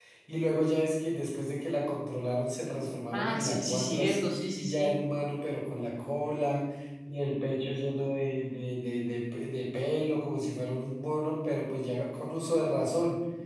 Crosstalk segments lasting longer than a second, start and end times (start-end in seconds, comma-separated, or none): 3.1-4.9